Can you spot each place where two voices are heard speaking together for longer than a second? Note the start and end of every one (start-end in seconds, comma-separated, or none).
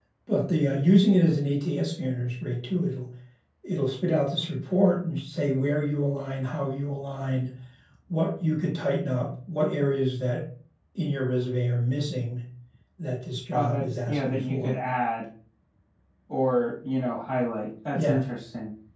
13.5-14.8